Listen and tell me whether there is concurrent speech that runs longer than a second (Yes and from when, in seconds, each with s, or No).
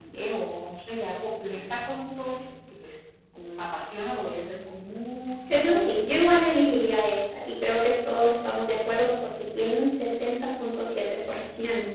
Yes, from 5.5 s